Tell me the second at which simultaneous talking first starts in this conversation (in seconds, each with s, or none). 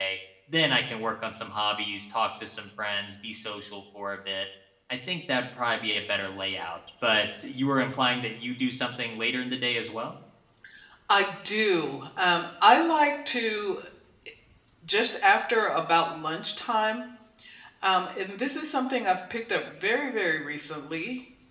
none